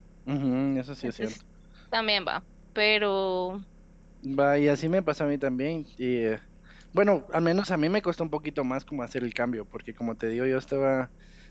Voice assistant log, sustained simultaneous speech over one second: none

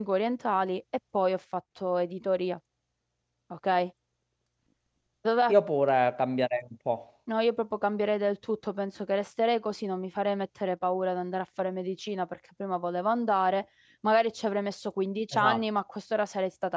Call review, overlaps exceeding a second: none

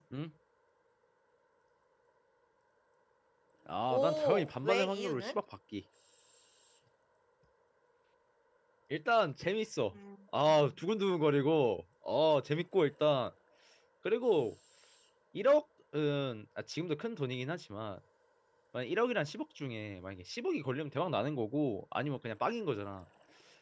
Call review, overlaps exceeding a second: present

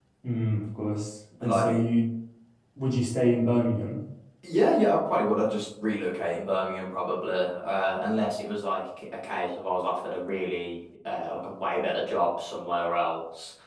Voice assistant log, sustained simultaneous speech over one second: none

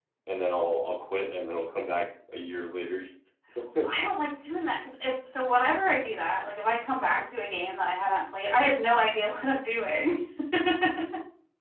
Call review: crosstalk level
none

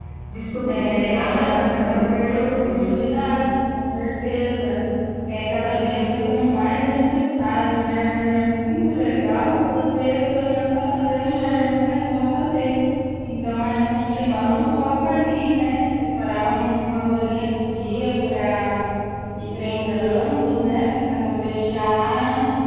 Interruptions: present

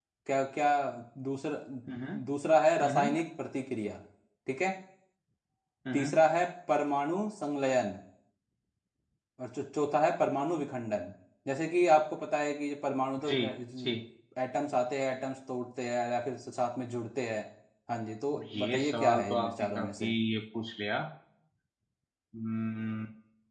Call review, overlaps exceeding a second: present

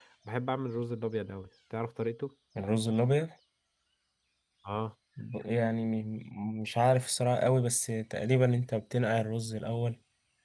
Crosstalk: none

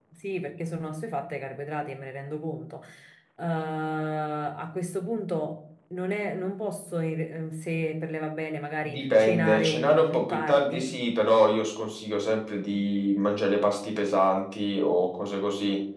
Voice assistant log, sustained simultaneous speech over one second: present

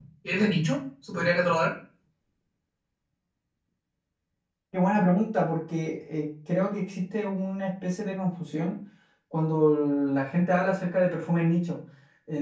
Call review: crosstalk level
none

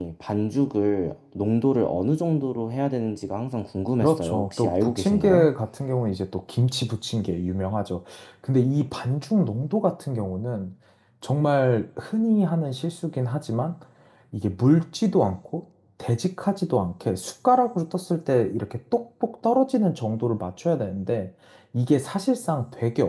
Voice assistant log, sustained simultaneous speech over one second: present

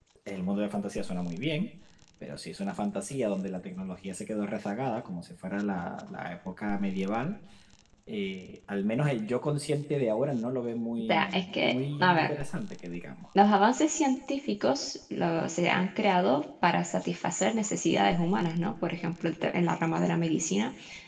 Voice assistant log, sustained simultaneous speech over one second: present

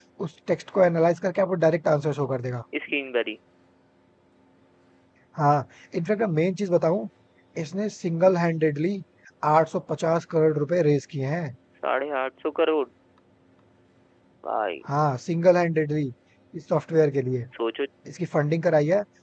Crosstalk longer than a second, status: none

